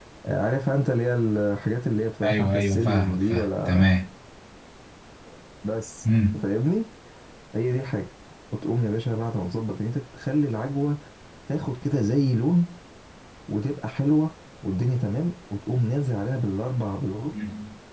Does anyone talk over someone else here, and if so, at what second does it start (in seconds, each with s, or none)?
2.2 s